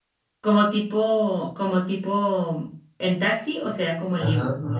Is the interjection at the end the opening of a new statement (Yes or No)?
Yes